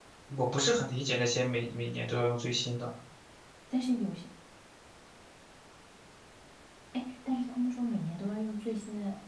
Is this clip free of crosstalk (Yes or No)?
Yes